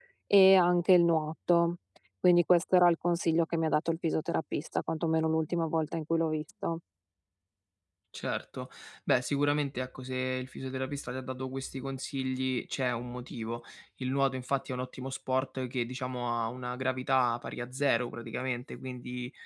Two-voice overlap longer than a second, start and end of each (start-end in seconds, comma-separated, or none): none